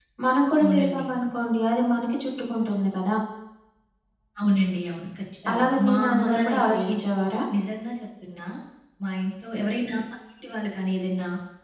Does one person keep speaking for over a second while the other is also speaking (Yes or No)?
Yes